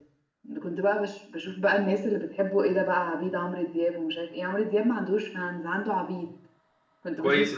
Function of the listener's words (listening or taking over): taking over